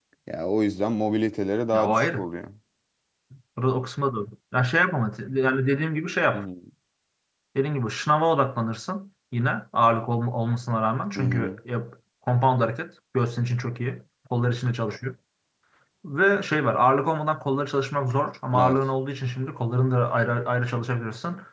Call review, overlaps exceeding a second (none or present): none